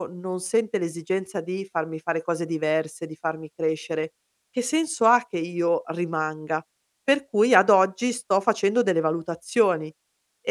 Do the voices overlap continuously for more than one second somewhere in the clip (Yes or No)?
No